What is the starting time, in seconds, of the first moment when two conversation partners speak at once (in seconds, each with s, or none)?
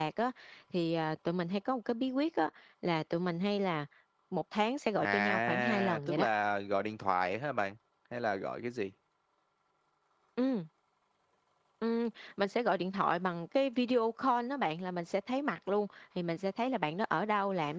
5.0 s